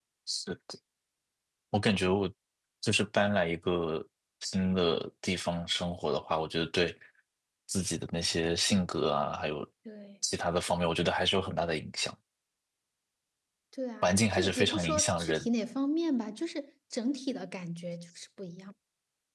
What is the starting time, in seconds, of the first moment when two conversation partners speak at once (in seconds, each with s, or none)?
14.0 s